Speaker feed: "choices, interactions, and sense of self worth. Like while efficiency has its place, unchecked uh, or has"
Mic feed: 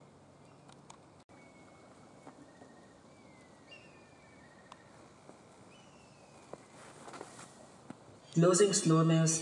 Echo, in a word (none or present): none